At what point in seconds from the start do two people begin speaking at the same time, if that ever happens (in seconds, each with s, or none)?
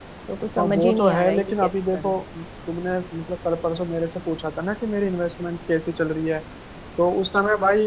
0.6 s